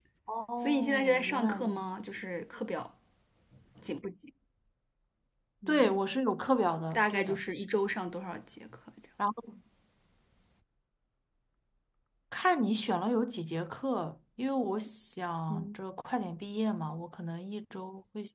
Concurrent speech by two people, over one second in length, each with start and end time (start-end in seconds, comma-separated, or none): 0.6-1.9